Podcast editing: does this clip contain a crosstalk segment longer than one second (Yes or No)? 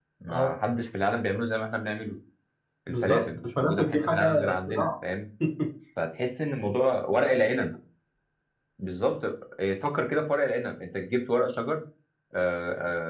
Yes